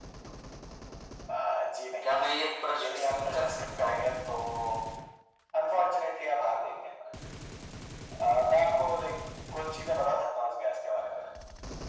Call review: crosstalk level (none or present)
present